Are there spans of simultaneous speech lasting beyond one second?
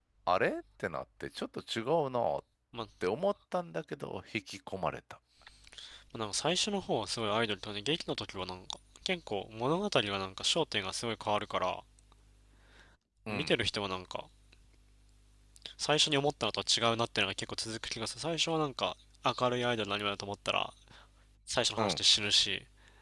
No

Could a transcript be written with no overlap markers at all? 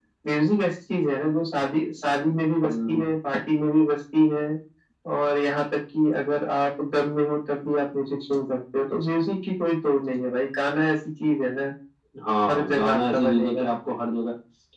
No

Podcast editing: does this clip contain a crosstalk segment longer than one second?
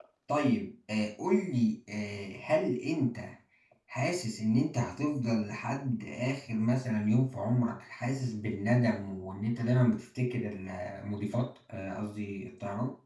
No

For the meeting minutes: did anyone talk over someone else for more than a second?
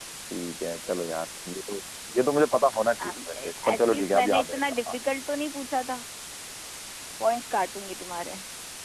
Yes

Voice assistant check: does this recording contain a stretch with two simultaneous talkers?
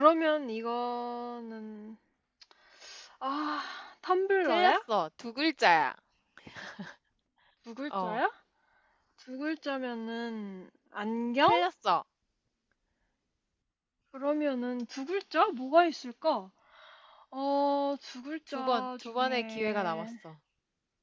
Yes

